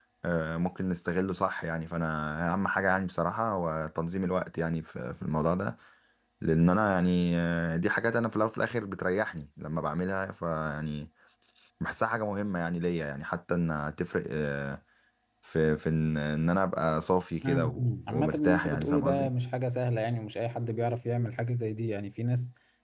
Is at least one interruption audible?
Yes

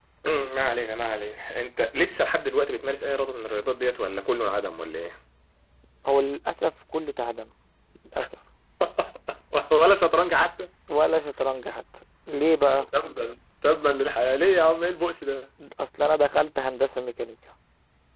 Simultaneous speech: No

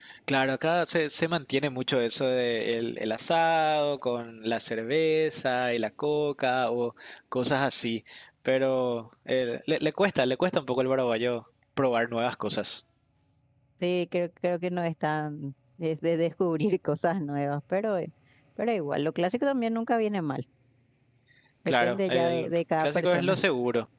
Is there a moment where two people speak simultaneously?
Yes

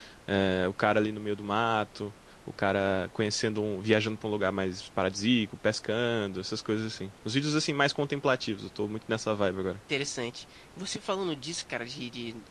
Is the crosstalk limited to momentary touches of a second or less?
Yes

